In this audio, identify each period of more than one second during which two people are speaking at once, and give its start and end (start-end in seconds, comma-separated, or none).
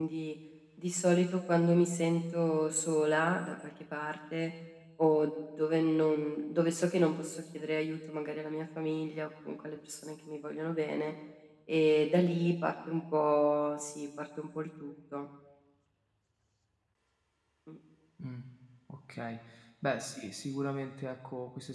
none